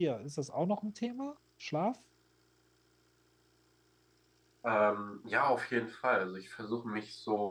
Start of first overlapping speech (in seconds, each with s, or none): none